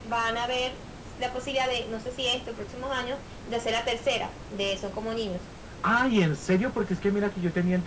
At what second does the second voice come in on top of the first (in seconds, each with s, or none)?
none